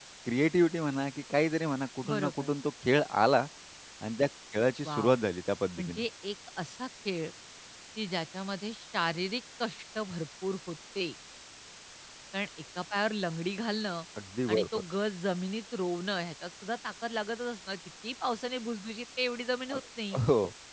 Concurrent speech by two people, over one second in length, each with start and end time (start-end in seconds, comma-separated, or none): none